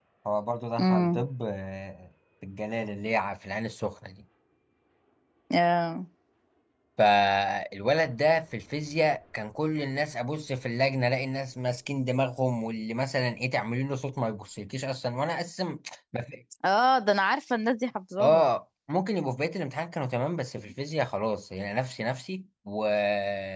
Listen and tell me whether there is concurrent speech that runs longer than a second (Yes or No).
No